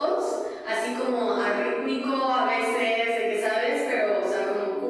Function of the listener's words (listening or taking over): listening